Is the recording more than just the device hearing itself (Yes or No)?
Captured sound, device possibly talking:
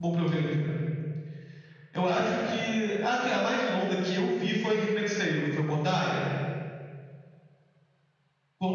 Yes